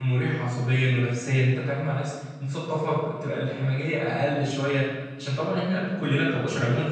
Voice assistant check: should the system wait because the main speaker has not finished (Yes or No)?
Yes